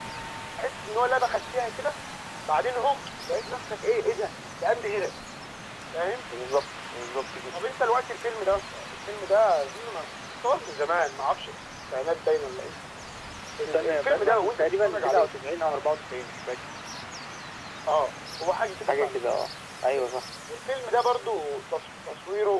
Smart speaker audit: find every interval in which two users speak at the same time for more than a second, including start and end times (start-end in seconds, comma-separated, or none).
13.7-15.3